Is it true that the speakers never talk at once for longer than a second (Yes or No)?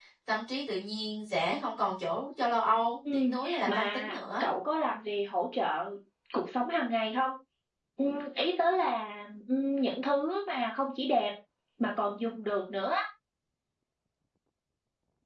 No